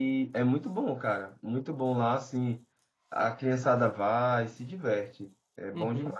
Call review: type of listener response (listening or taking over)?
taking over